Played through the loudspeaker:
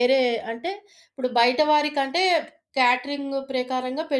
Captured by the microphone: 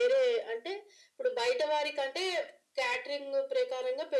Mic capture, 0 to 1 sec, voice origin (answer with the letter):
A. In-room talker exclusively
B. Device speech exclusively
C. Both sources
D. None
B